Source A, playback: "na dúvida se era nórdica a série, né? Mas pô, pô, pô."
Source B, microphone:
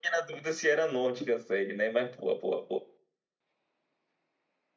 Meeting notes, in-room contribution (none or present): none